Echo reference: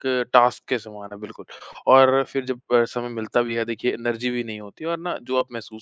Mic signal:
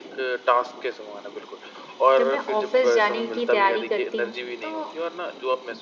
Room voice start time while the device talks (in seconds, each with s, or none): 2.2 s